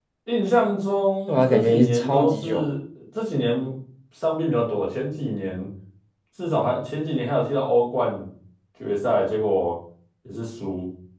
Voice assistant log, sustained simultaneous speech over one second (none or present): present